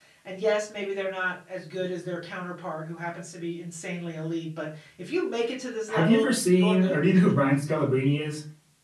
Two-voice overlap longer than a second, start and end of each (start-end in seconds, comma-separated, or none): 5.9-7.2